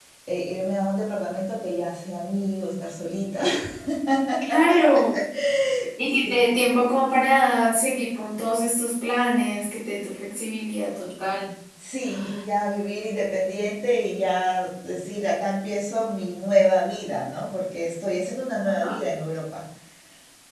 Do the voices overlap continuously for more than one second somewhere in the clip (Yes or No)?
No